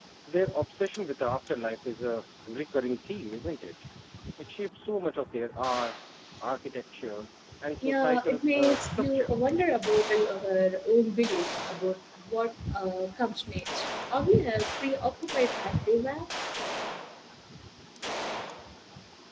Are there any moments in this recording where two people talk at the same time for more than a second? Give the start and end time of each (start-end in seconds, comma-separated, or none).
7.8-9.3